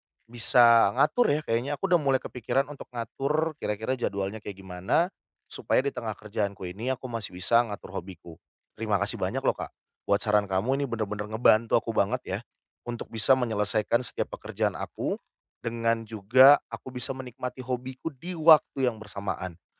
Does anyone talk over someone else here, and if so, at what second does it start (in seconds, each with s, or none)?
none